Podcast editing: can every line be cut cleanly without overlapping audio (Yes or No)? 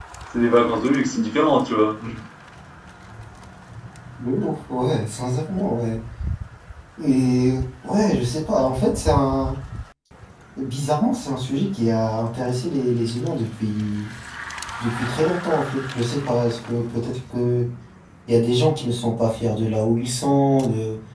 Yes